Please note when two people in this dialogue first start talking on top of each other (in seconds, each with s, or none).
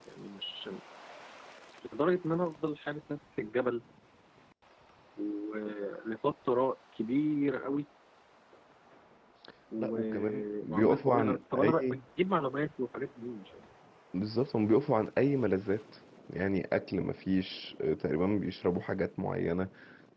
9.8 s